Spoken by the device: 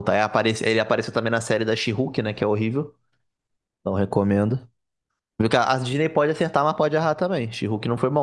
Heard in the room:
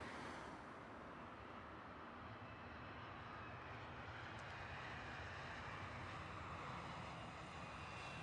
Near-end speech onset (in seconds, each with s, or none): none